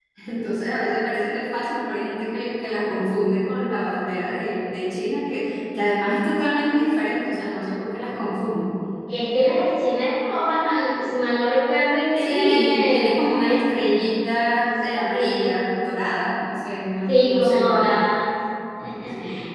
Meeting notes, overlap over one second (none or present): present